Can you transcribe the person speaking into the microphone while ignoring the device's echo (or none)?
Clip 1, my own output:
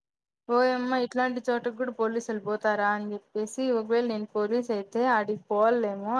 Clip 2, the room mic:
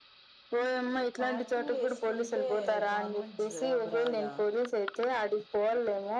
చాట్ వేసుకుంటే గవర్నమెెంట్ జాబ్ రాదా